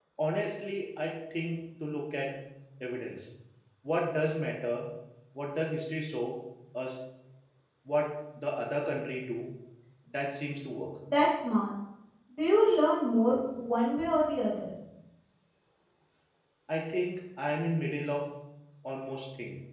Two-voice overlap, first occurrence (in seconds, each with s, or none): none